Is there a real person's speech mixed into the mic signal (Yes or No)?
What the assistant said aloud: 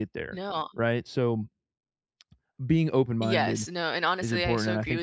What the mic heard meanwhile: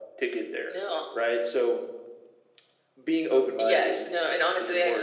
No